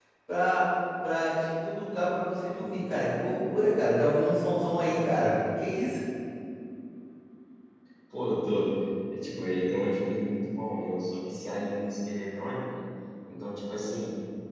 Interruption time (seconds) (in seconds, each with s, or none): none